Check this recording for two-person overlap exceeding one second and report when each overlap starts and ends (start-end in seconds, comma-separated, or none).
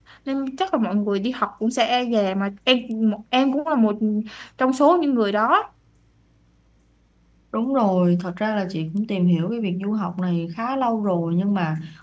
none